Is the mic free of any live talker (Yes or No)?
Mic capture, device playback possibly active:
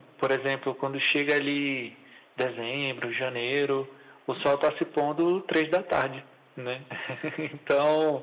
Yes